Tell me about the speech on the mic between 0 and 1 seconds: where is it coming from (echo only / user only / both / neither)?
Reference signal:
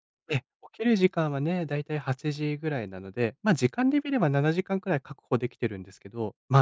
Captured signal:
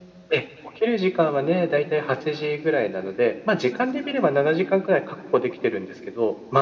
echo only